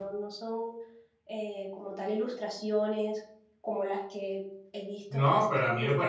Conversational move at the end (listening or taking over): taking over